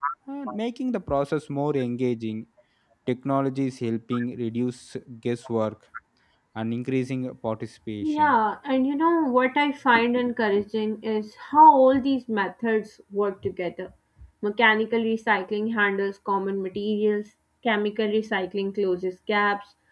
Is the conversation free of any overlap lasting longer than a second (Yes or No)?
Yes